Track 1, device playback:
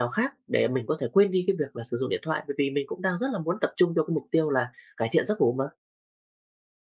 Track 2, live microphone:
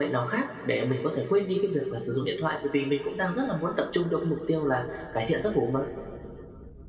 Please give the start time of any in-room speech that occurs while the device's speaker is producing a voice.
none

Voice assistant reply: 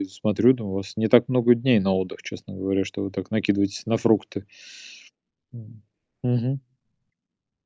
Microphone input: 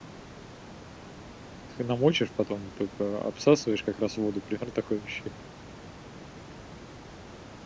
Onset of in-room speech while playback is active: 1.8 s

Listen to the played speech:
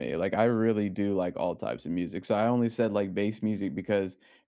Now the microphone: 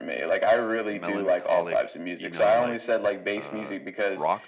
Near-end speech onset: 0.9 s

